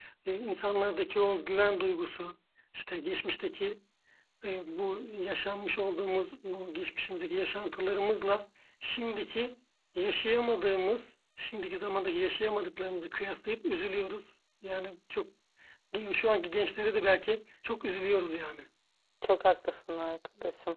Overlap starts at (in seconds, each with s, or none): none